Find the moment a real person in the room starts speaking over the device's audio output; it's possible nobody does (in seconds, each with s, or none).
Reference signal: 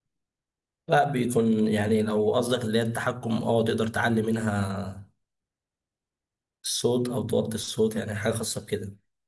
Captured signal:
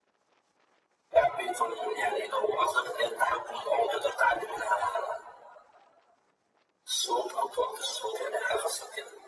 none